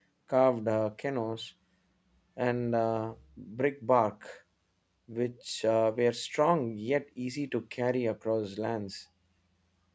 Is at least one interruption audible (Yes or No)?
No